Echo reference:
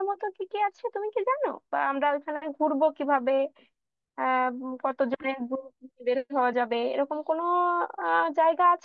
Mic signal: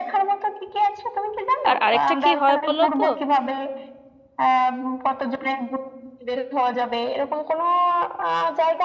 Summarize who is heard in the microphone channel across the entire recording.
both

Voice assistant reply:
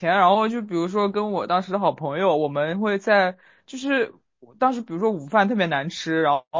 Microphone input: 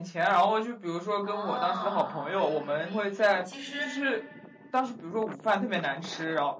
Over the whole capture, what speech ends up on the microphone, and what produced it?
both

